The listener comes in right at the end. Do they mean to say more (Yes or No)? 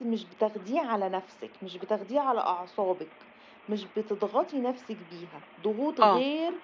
No